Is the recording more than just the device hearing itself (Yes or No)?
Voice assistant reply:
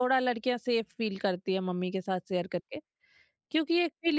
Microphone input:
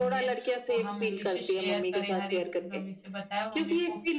Yes